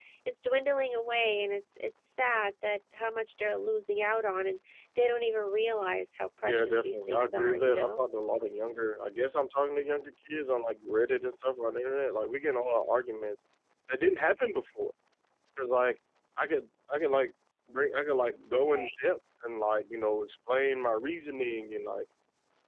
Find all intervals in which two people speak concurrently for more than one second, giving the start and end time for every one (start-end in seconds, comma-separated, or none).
6.4-8.0